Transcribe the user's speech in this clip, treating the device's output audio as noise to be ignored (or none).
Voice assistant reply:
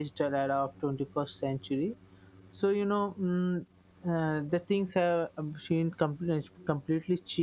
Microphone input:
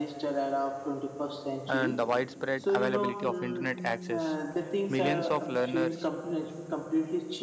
and the widespread availability of internet access, millions of learners